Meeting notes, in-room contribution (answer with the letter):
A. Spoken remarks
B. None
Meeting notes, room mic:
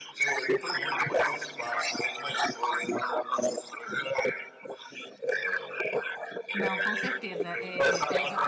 A